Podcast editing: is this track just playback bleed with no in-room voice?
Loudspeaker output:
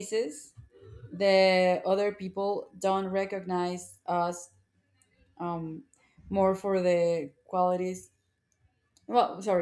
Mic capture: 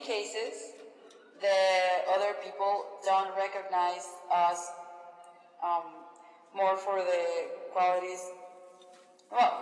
Yes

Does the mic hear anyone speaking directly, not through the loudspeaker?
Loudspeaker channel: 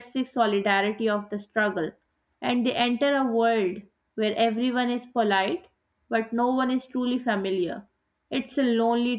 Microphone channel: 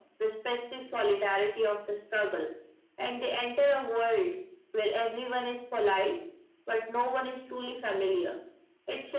No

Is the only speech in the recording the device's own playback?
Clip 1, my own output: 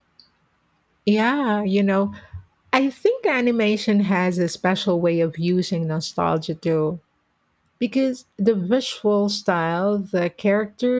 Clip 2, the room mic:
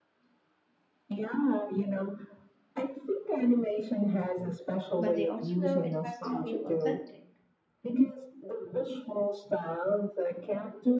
No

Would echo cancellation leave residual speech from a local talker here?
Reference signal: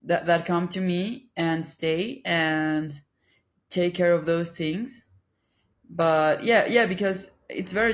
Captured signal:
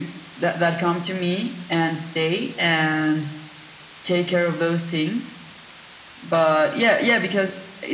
No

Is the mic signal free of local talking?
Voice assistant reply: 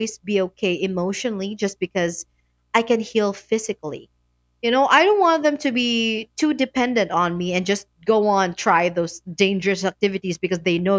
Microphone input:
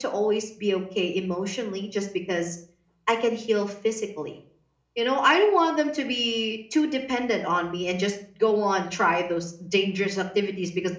Yes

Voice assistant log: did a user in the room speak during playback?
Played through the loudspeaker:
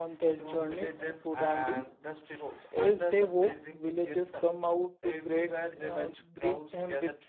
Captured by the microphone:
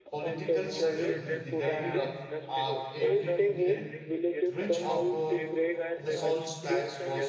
Yes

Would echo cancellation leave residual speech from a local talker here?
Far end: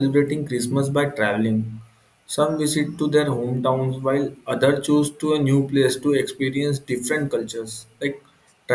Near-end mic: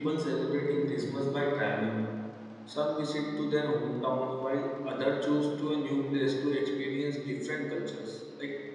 No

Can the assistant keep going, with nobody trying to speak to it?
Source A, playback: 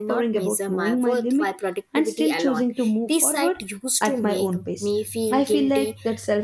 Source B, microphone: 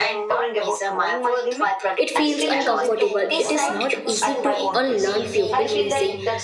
No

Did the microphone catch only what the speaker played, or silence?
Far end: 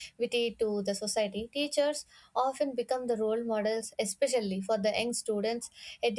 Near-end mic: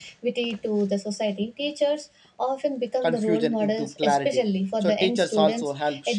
No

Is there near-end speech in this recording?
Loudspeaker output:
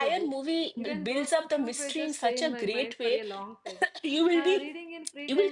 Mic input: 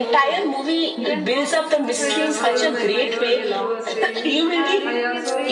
Yes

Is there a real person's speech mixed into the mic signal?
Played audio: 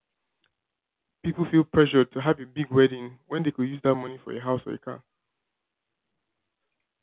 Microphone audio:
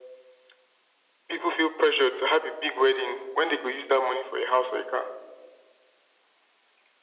No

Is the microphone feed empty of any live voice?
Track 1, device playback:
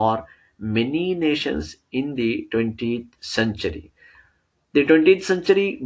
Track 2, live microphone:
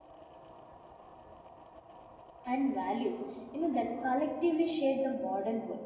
No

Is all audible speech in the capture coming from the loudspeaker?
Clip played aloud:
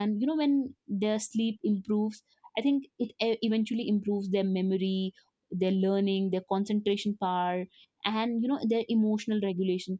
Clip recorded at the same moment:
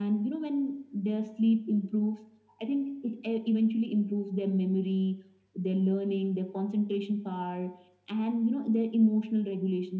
Yes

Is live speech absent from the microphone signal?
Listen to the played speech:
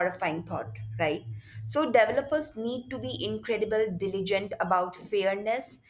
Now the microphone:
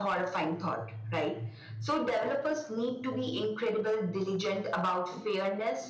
Yes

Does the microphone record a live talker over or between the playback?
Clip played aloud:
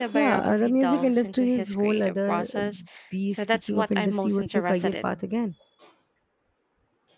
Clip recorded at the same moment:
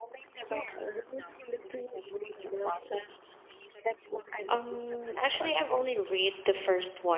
Yes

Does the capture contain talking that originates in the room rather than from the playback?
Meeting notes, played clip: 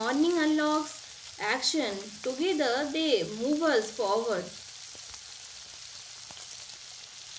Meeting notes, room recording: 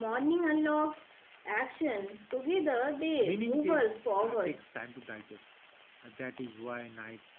Yes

